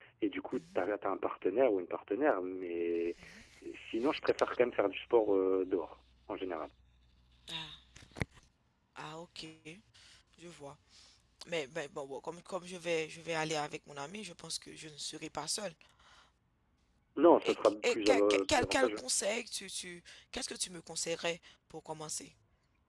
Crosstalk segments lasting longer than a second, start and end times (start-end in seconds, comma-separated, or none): 17.4-19.0